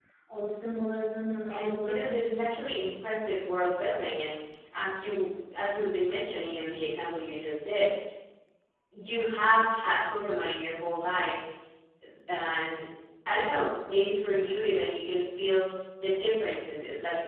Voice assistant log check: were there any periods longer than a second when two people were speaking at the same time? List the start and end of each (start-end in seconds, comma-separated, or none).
1.5-2.8